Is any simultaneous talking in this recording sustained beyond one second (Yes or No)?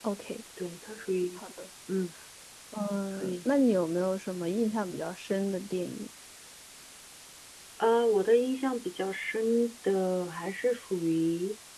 No